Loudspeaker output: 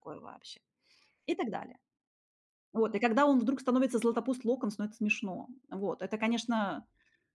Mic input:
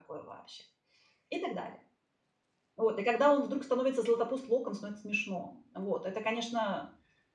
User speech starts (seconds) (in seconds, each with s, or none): none